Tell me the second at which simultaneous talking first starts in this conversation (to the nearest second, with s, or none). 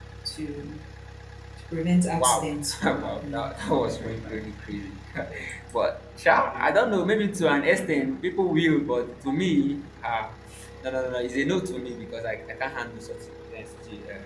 2 s